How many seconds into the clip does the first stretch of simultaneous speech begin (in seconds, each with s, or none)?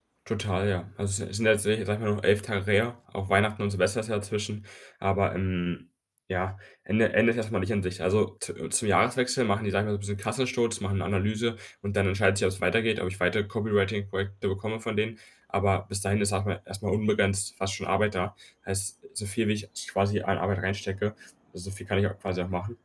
none